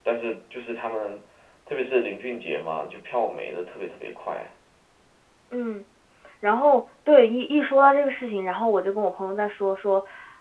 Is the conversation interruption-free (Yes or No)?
Yes